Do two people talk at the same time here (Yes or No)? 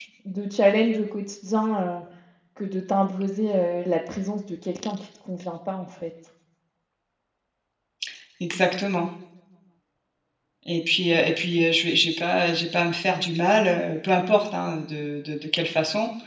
No